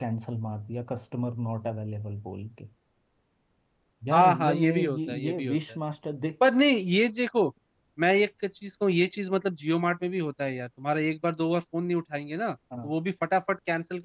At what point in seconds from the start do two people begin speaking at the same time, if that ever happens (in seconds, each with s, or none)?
4.1 s